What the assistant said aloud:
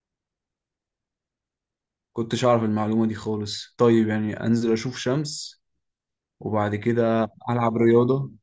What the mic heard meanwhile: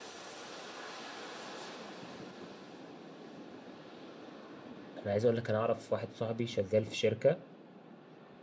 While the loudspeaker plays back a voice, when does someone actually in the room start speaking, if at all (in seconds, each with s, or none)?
5.0 s